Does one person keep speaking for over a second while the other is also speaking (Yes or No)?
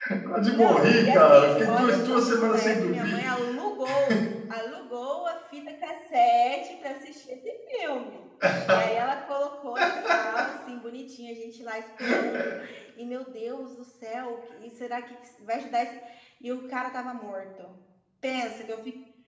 Yes